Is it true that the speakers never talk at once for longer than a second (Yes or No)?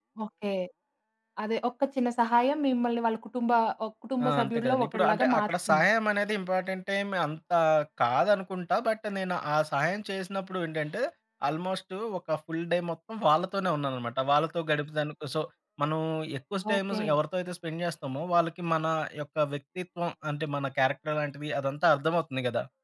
No